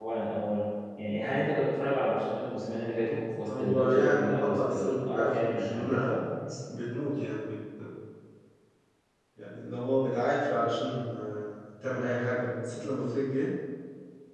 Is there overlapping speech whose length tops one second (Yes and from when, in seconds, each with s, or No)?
Yes, from 3.5 s